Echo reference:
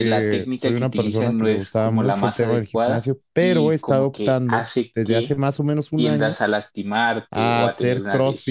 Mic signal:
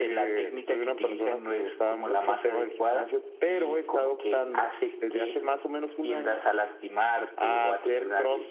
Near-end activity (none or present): none